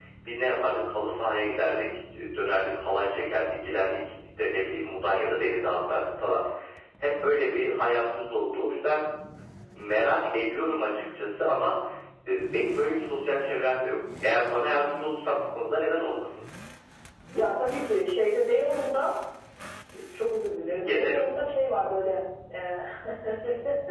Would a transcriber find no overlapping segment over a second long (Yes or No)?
Yes